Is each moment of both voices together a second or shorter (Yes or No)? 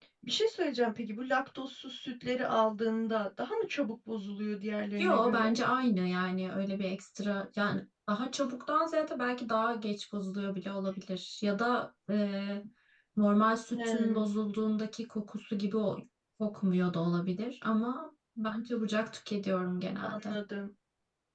Yes